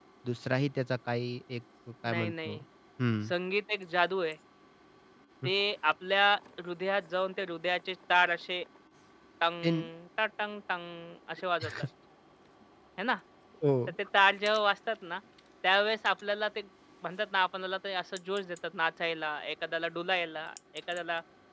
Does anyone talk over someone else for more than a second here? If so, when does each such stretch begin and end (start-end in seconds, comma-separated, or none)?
none